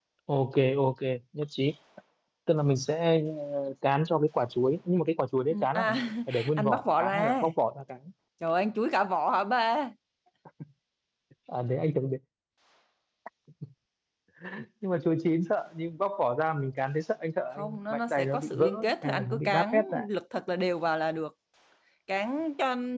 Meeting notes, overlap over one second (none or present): present